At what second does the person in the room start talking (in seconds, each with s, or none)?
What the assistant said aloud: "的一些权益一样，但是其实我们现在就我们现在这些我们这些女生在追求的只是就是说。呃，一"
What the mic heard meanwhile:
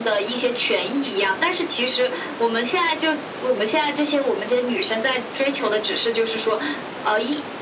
none